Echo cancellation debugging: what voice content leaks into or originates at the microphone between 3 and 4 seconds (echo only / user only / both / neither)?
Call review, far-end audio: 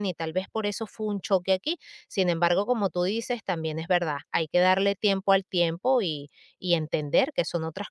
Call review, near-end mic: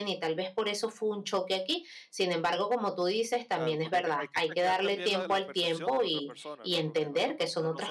both